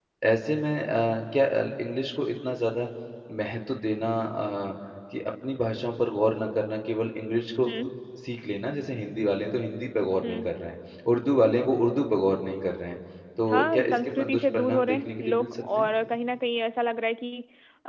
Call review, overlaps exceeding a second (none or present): present